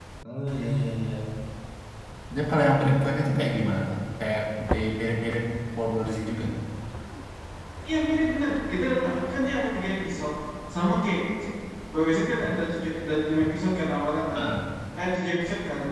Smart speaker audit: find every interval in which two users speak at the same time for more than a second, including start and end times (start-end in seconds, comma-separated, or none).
none